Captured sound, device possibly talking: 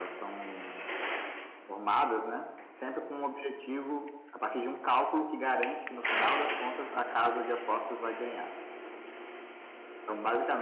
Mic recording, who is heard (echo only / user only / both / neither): echo only